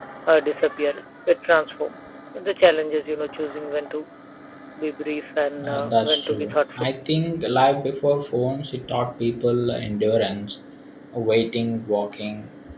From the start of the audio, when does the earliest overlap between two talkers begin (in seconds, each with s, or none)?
5.6 s